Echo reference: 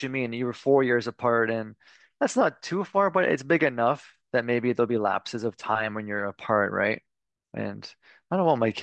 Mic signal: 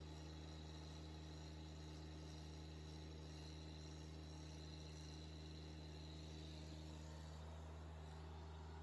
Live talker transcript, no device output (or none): none